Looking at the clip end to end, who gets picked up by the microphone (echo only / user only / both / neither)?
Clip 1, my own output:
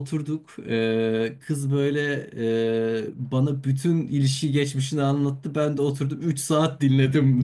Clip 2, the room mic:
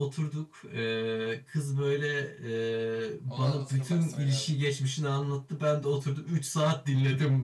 both